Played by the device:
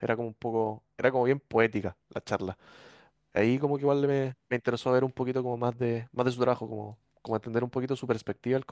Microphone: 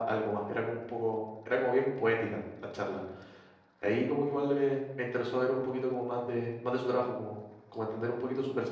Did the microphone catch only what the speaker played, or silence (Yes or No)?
Yes